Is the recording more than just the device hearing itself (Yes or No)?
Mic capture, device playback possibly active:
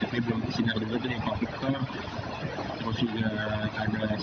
No